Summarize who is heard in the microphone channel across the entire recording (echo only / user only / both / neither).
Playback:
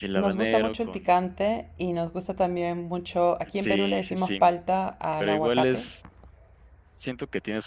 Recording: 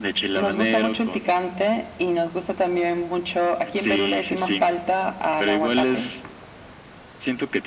echo only